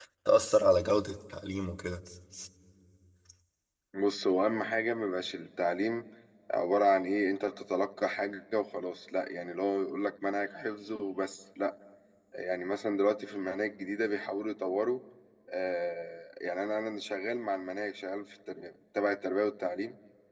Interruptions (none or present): none